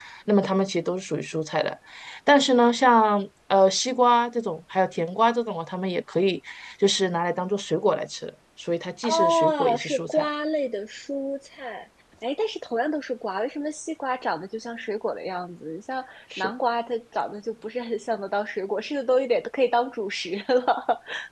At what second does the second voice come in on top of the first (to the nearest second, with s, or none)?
9 s